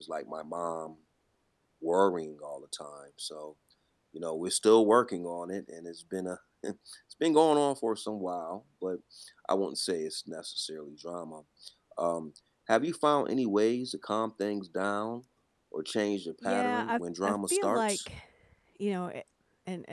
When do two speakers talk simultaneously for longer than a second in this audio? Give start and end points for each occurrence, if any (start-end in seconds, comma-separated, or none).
16.4-18.0